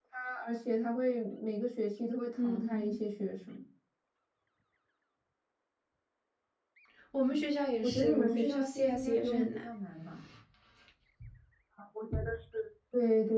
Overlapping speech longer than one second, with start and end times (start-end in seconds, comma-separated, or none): 7.8-9.6